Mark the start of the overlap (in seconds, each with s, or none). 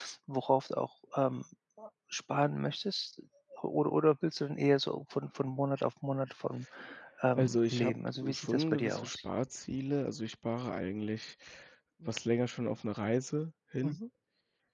7.4 s